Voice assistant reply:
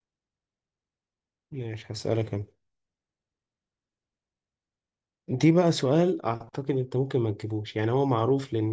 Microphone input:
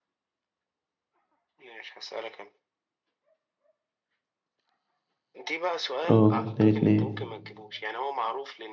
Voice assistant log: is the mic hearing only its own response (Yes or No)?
No